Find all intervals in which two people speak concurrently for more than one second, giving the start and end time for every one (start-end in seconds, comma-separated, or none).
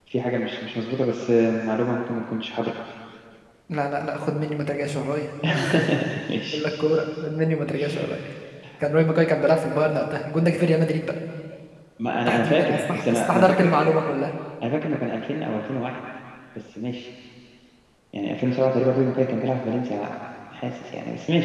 12.3-13.7